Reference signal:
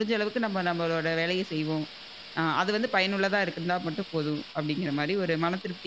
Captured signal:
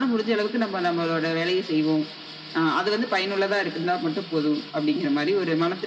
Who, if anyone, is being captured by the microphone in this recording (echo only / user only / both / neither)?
echo only